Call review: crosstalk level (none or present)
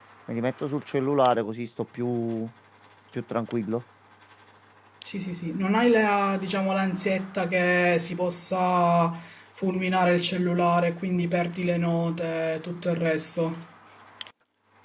none